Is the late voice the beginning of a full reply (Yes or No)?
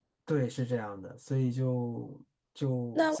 No